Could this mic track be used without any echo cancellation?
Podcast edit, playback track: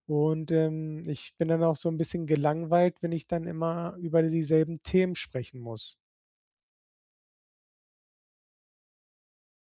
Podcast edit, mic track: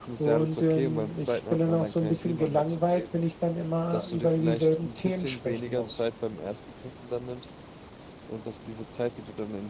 No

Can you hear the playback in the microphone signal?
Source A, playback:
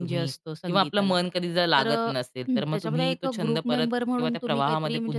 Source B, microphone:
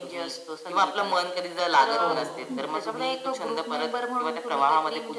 Yes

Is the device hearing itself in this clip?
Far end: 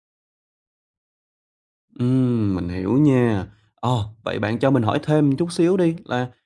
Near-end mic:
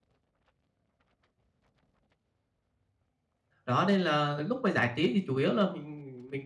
No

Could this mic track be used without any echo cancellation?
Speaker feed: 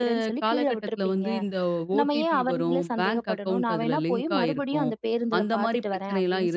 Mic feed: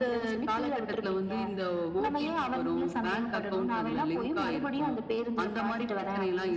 No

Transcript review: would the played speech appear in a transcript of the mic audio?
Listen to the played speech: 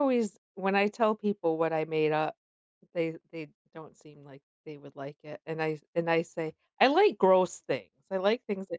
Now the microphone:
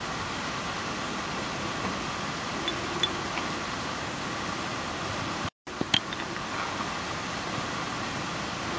No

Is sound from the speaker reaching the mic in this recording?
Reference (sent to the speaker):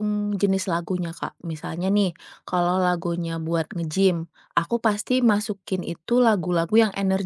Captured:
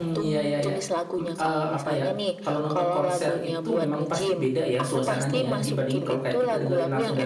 Yes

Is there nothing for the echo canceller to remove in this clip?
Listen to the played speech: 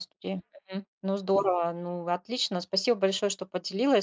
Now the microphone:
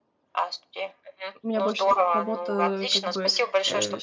No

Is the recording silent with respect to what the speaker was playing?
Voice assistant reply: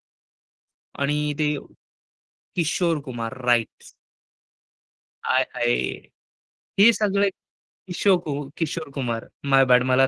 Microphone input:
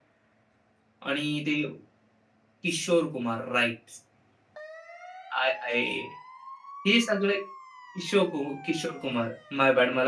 No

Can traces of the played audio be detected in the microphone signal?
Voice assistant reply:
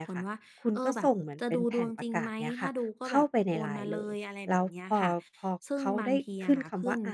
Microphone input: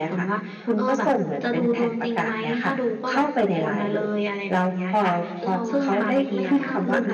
Yes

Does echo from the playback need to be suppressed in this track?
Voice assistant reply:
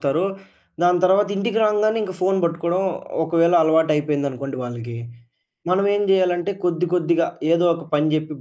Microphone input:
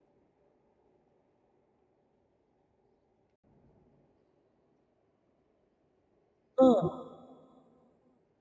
No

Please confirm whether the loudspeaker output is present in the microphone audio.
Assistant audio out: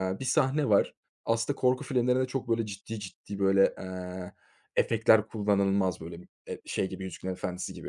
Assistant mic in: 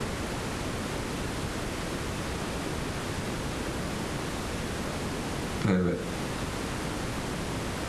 No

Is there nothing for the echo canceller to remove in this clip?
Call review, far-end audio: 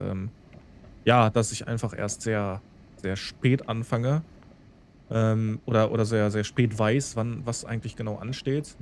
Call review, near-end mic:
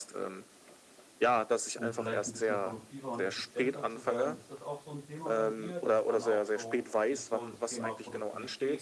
No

